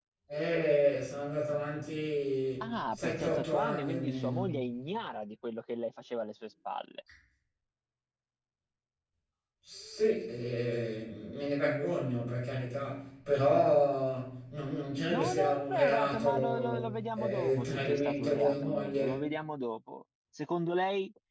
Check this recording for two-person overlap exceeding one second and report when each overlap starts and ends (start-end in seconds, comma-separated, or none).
2.6-4.6, 15.1-19.2